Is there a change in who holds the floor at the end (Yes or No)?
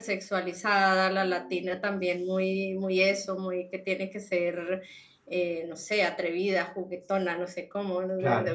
No